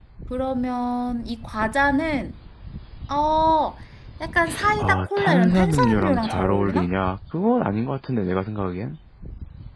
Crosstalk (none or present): present